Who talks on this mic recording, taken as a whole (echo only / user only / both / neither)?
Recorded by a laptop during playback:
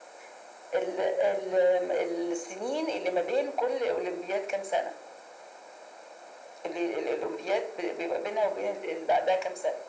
echo only